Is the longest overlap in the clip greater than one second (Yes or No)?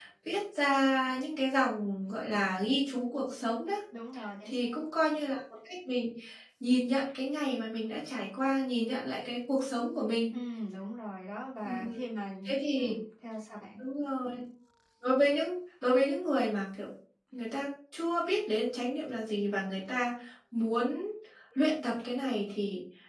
No